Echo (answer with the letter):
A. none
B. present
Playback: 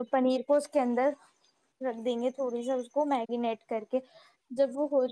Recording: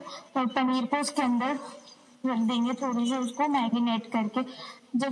B